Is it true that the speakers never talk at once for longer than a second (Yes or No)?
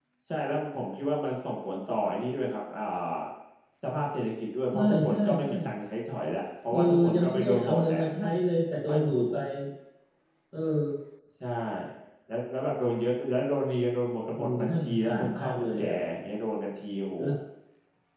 No